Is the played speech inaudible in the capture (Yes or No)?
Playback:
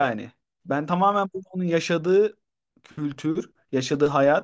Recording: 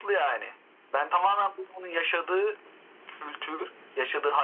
No